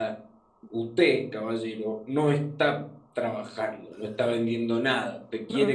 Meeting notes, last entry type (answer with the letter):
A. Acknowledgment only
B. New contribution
A